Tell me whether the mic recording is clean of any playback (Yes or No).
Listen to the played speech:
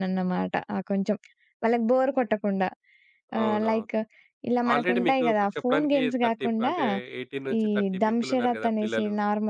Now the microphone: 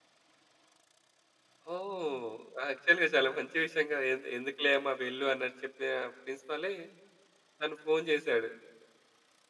Yes